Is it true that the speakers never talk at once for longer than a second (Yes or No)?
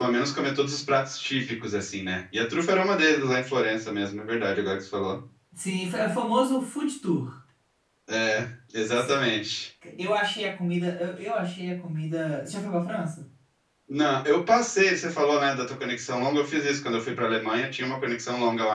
Yes